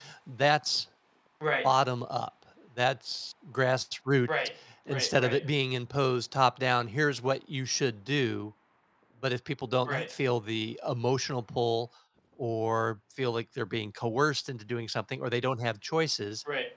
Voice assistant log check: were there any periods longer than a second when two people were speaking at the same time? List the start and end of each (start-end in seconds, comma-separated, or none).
none